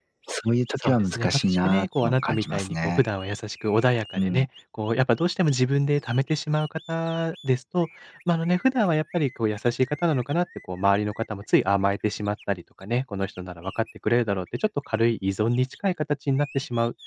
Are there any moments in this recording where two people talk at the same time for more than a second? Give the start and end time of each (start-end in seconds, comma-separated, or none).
0.8-3.0